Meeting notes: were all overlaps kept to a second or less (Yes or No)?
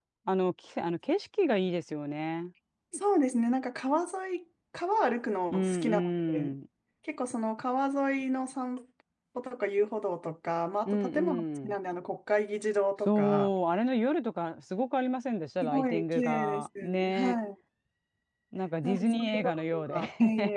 No